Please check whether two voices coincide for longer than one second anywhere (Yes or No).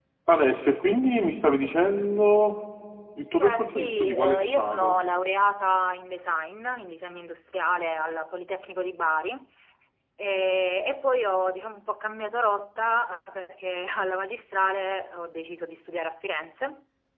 Yes